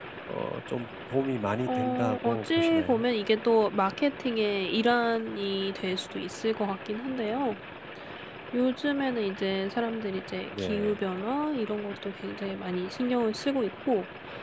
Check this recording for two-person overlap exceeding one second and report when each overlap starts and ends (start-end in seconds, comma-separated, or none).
1.7-3.0